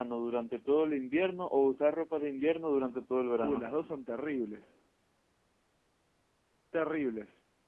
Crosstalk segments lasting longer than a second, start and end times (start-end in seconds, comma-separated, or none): none